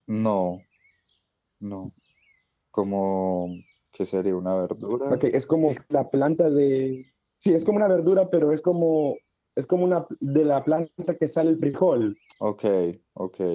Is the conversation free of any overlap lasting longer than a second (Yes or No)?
Yes